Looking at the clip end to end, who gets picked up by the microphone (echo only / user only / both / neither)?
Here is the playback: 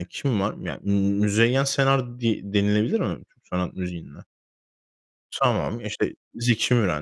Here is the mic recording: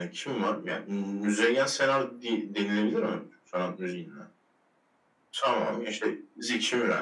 echo only